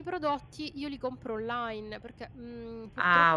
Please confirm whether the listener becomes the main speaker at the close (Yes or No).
Yes